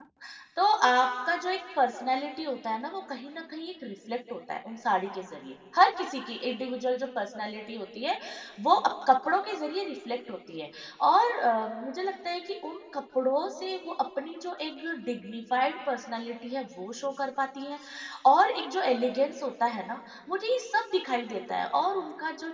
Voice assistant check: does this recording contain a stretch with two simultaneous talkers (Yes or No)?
No